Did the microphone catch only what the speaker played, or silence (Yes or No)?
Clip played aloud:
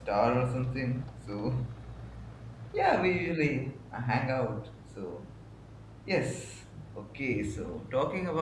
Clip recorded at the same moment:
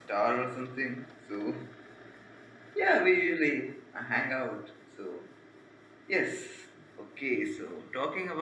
Yes